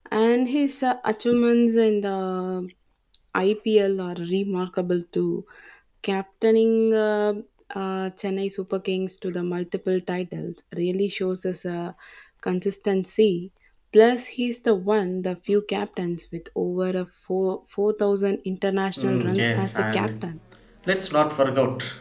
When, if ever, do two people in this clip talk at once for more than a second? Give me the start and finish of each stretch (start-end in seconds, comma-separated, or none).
19.0-20.3